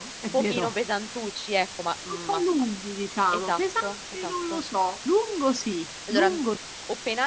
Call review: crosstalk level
present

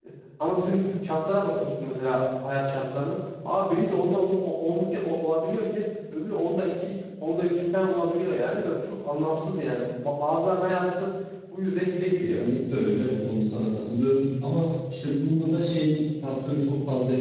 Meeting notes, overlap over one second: none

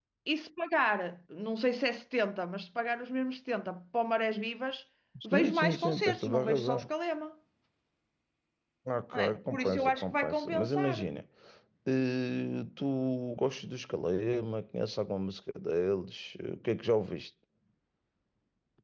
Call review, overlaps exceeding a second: present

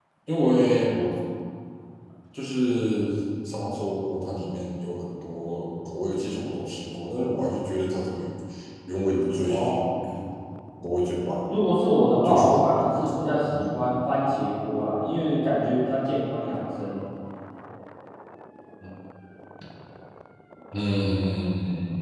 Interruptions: present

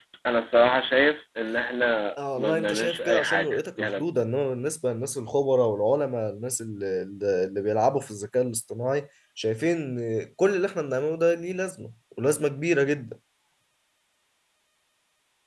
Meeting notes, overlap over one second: present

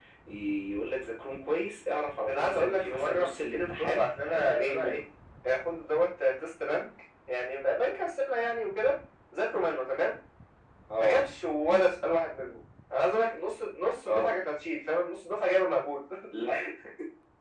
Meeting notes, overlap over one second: present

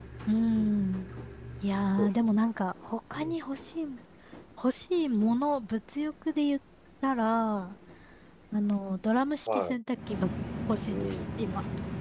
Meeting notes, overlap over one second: none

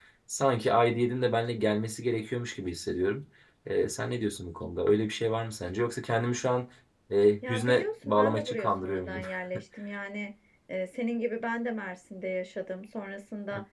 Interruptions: present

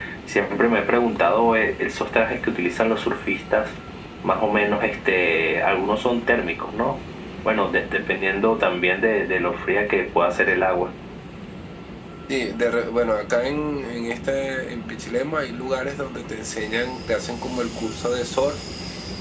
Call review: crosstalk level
none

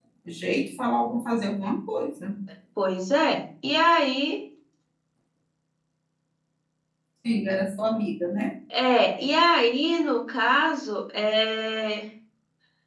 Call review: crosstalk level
none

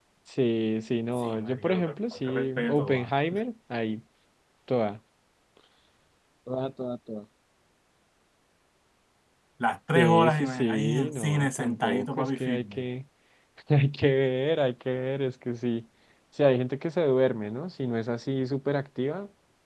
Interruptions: present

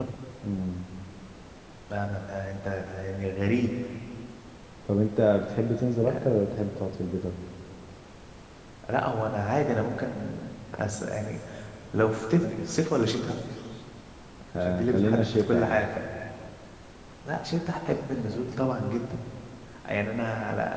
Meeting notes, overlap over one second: present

